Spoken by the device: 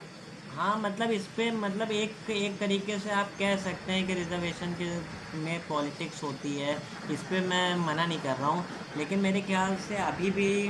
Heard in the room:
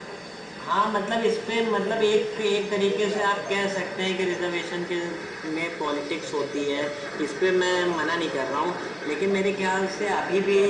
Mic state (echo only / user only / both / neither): both